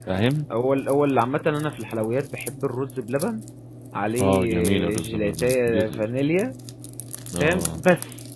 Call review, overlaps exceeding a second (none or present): present